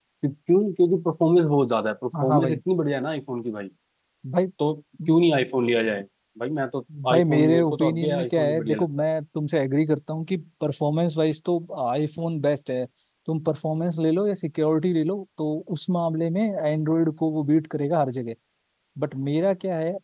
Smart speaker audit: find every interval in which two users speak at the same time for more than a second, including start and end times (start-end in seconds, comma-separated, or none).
7.1-8.9